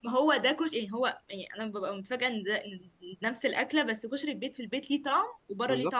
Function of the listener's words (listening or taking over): taking over